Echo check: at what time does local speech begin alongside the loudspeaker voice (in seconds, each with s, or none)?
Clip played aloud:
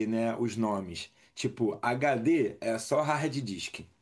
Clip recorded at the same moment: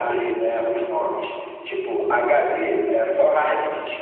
none